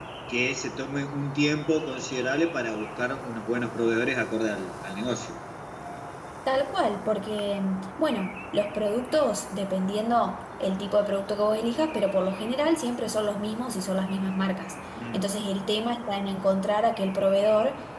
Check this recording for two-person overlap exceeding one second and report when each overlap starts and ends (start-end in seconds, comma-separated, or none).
none